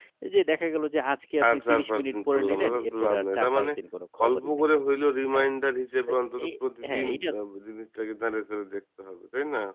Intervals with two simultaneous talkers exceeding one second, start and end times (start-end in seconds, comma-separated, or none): 1.5-3.7